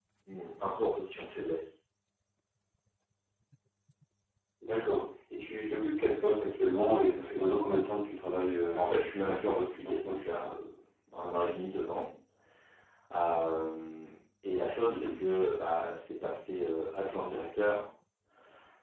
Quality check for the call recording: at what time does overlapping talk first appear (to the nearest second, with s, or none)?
9 s